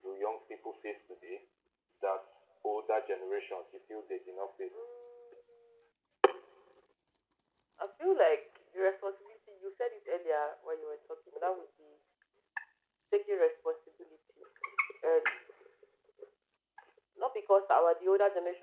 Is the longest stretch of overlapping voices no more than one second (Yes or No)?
Yes